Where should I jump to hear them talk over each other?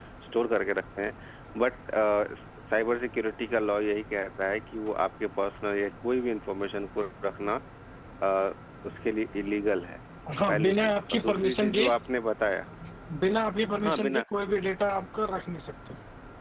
10 s

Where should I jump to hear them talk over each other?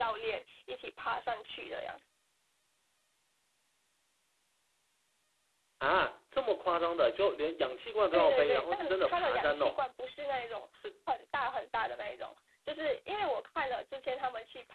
8 s

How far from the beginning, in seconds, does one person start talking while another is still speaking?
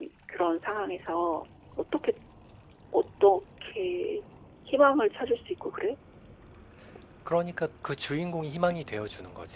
none

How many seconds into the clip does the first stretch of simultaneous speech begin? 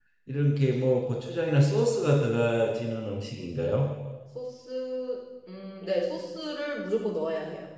none

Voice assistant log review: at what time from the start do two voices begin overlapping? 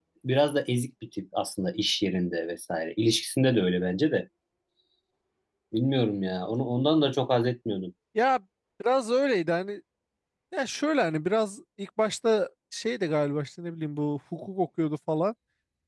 none

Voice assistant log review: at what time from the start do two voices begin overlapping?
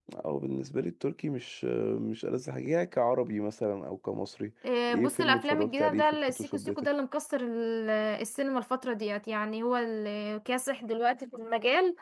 5 s

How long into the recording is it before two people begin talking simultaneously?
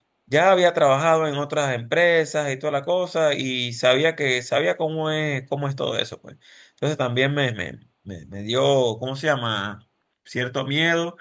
none

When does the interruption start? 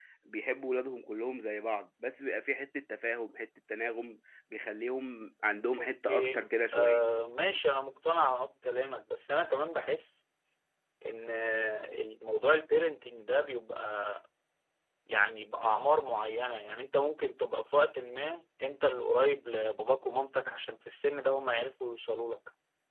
6 s

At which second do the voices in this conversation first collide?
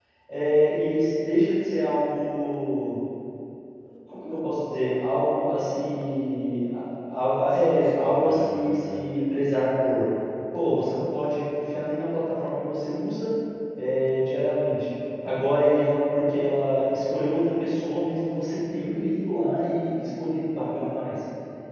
7 s

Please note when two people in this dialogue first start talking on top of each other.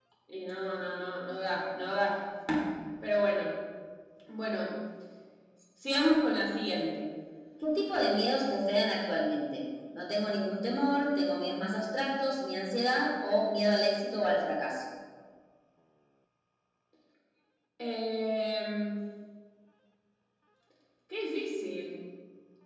none

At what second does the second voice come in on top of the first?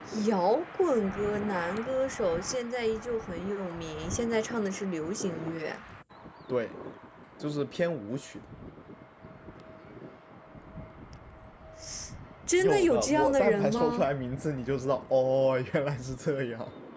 13 s

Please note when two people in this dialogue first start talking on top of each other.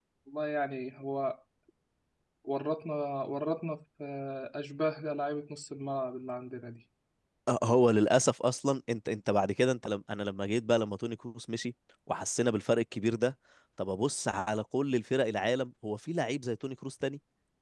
none

